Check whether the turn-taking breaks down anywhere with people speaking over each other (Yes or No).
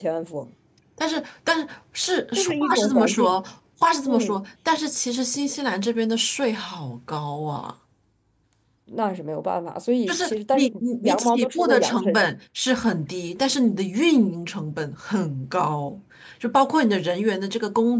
Yes